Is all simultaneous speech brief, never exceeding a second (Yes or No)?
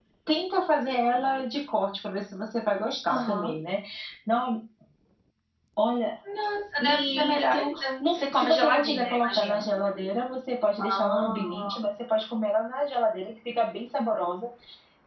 No